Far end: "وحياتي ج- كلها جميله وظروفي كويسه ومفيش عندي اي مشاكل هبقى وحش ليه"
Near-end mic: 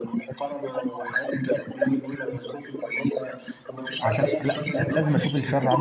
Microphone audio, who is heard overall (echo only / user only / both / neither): both